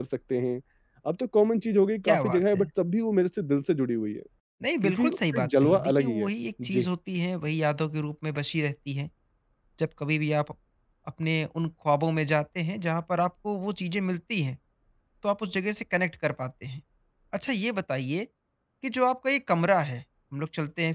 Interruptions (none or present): present